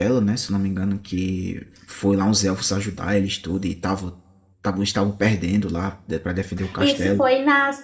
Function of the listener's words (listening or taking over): taking over